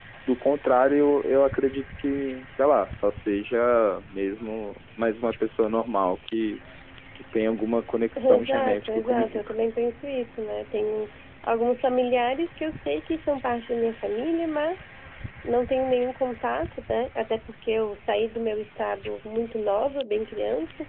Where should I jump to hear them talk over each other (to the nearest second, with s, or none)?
8 s